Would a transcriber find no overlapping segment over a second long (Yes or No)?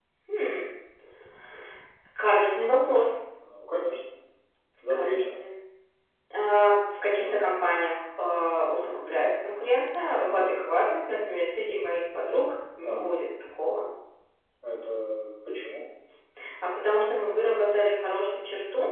Yes